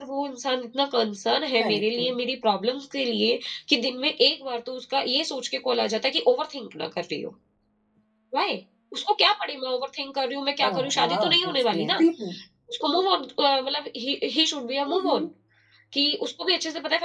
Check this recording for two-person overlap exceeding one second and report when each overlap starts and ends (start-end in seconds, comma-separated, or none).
10.7-12.0